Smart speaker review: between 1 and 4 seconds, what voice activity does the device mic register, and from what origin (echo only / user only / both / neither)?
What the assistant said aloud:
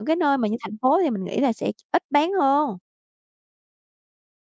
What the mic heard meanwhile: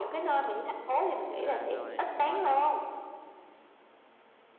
both